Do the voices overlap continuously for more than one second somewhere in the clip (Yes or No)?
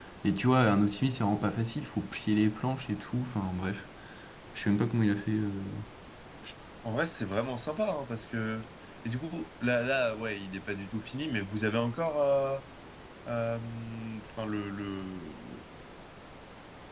No